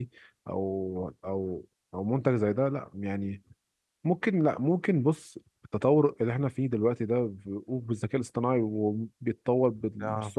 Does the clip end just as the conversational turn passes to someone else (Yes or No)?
No